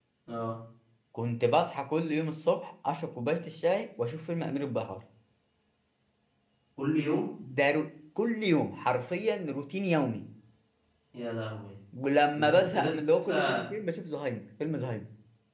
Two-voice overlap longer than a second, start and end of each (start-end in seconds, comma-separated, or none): 12.4-13.6